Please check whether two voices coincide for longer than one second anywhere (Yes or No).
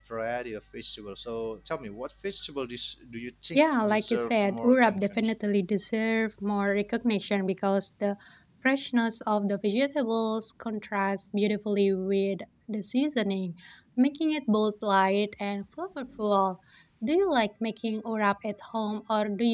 Yes